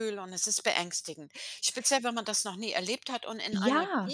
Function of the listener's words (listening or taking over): listening